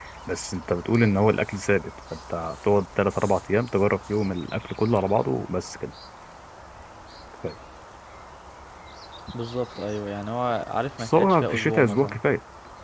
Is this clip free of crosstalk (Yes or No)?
No